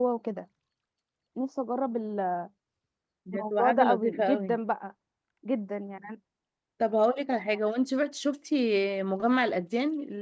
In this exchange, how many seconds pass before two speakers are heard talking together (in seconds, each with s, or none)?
3.3 s